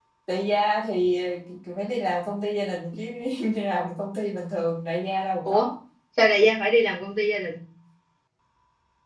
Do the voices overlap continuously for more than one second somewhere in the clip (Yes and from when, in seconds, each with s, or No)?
No